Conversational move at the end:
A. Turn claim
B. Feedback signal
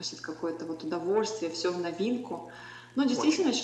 B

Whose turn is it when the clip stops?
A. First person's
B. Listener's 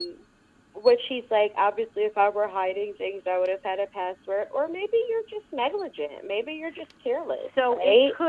B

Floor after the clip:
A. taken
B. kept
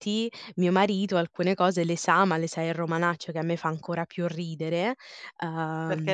A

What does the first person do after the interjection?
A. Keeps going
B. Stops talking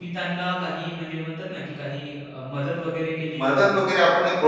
B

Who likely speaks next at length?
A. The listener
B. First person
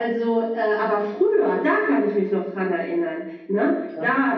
B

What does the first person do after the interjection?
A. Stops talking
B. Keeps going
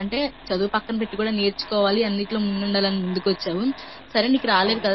B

